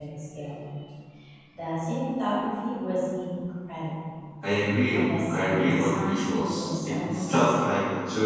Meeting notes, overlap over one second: present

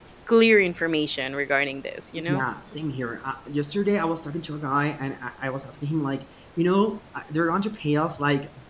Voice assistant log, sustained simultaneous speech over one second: none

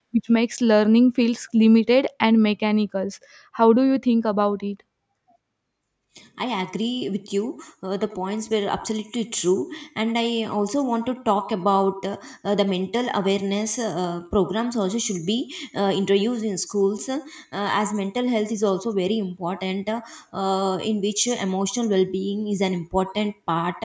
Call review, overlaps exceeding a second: none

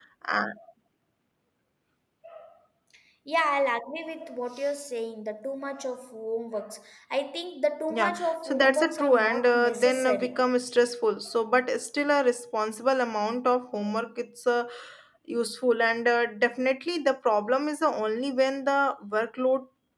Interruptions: present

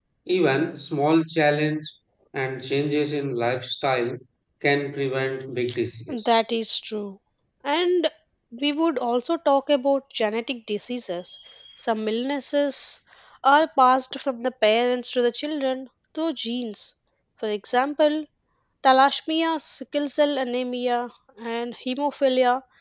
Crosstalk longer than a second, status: none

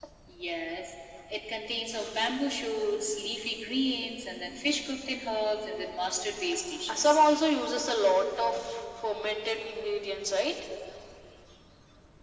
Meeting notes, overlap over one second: none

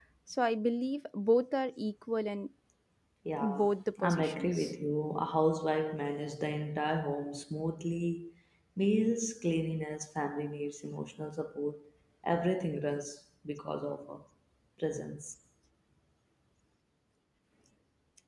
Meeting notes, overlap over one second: present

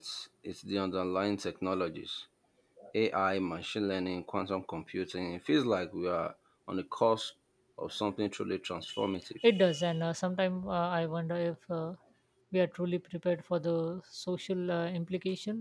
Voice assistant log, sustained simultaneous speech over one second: none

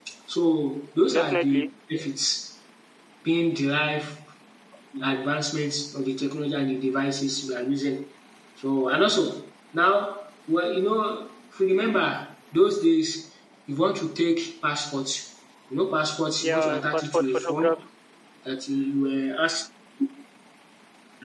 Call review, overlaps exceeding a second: present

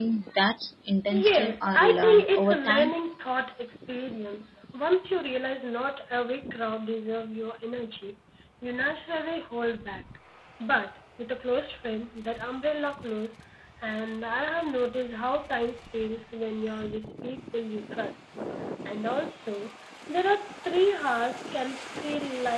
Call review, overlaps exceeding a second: present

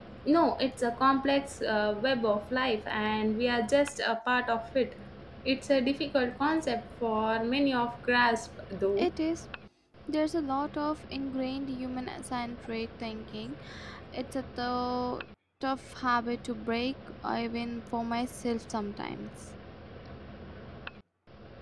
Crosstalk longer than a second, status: none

